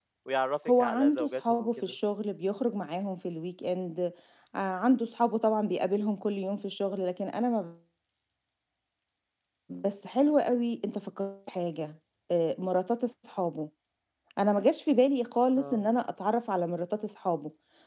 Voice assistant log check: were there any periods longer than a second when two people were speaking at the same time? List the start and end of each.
0.7-1.9

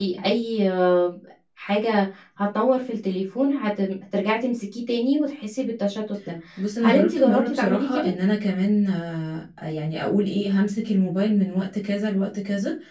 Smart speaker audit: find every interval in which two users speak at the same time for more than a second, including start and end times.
6.8-8.1

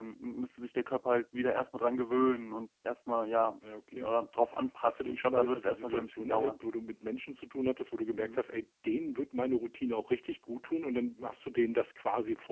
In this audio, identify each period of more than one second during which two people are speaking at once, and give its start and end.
4.8-6.5

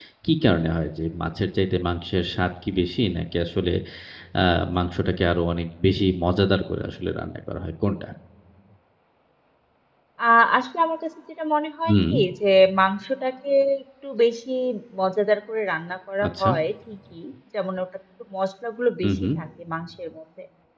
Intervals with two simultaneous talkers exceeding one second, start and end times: none

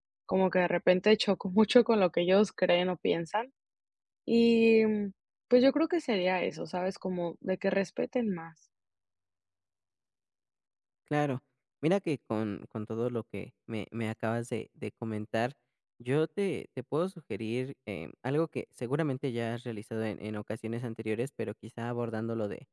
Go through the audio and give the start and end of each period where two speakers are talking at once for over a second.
none

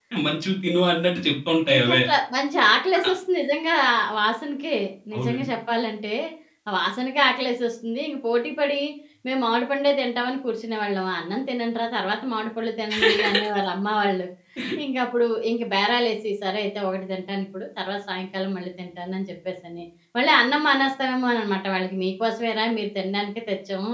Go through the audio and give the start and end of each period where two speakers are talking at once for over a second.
none

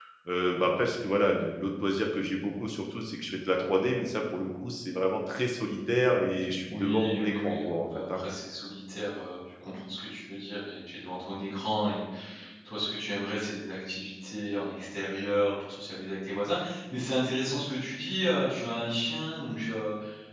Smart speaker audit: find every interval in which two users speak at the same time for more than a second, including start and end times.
6.7-8.2

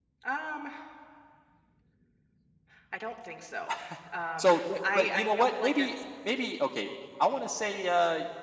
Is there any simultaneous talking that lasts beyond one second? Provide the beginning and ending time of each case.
4.4-5.9

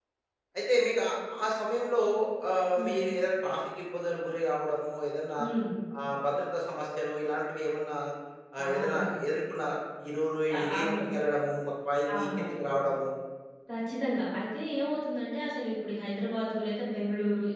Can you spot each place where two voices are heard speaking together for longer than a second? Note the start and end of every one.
none

